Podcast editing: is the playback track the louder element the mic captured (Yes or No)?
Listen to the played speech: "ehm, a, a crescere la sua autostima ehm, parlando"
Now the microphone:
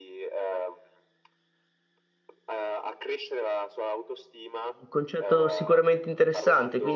No